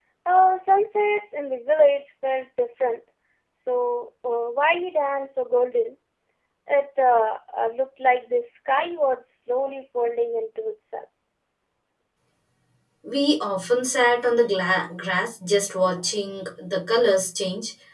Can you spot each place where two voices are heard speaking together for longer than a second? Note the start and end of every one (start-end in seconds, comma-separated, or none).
none